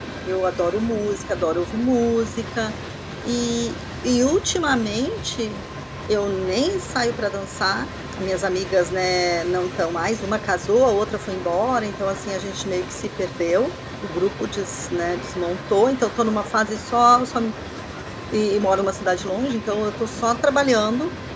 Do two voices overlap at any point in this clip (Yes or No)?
No